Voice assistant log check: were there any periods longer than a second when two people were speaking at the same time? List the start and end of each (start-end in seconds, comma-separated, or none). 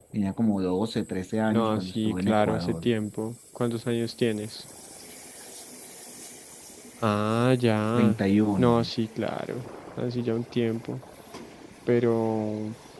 1.5-2.9